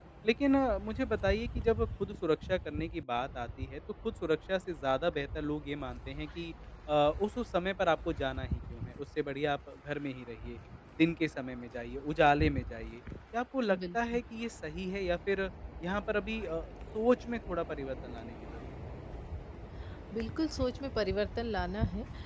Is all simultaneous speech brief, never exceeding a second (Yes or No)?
Yes